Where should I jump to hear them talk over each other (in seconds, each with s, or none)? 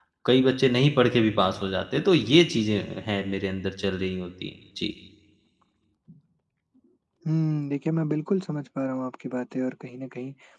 none